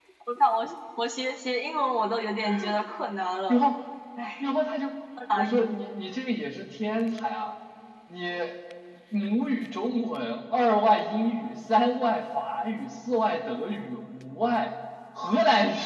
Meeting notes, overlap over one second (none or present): none